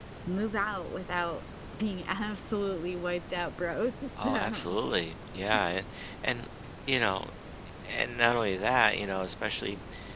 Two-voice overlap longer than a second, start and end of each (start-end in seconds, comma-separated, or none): none